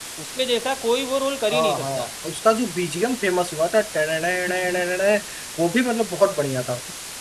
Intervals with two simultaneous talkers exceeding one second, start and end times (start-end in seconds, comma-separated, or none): none